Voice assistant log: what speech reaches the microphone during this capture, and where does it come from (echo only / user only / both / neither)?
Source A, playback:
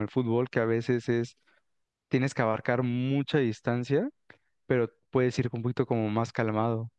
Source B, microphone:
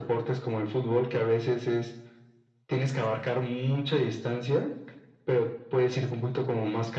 echo only